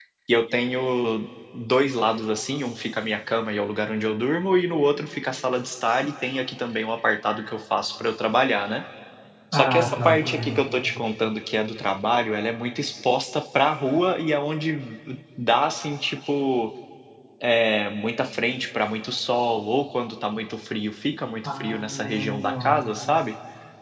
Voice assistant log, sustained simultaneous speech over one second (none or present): present